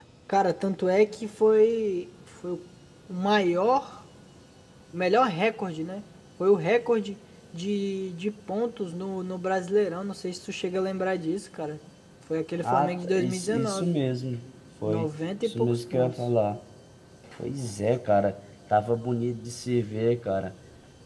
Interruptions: present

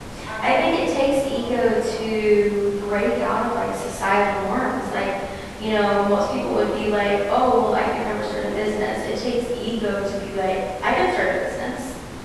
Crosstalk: present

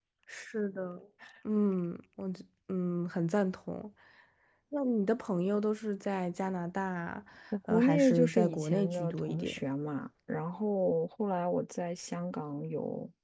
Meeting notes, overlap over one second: present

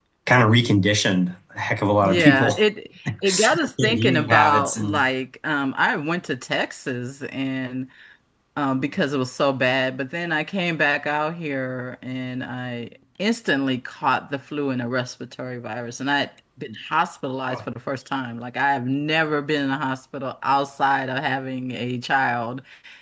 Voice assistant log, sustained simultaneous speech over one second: present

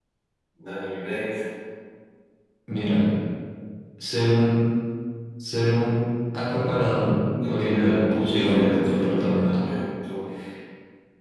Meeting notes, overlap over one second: present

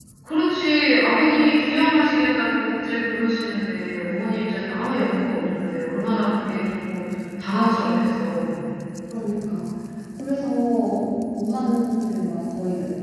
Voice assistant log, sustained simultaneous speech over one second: none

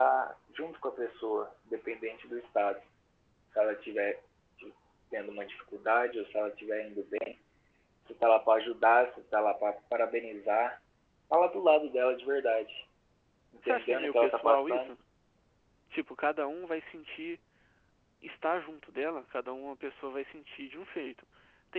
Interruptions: present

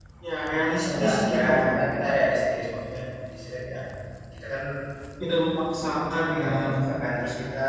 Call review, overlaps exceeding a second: present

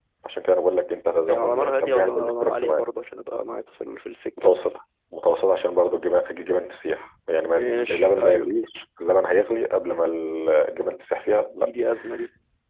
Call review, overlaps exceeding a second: present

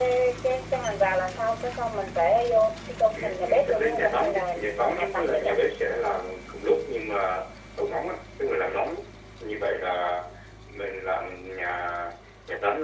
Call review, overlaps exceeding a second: present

